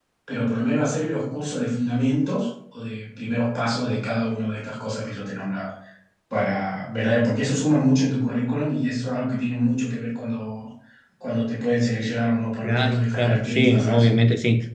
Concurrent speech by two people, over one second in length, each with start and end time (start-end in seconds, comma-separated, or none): 12.6-14.0